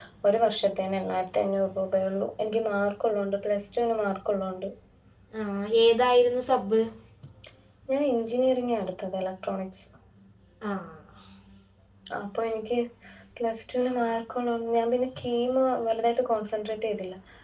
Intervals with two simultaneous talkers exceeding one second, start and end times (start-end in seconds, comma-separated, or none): none